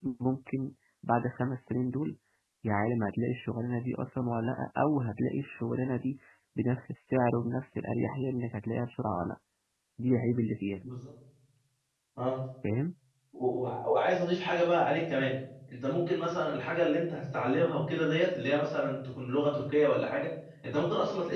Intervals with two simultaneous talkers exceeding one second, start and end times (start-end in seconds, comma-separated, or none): none